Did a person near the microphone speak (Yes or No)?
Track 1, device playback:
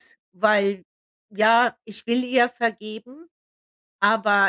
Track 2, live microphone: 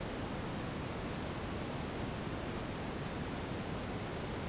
No